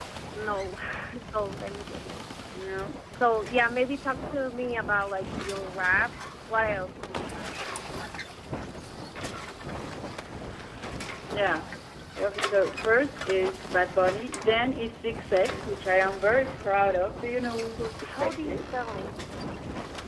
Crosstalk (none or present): present